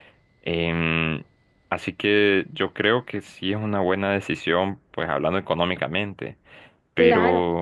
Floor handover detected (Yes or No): Yes